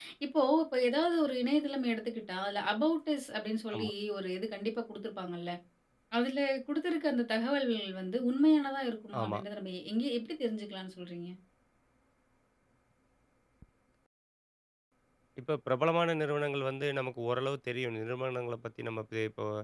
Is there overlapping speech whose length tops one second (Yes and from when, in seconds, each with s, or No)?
No